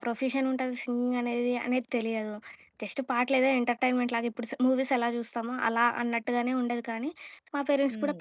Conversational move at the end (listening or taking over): listening